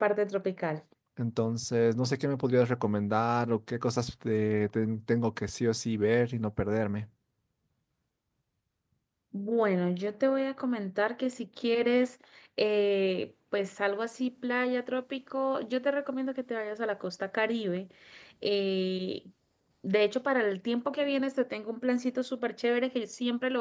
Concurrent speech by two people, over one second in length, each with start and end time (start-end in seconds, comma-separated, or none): none